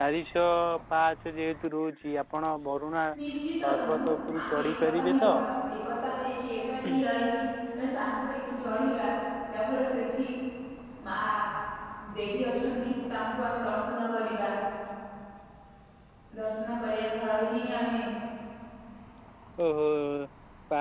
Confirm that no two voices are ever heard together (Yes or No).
No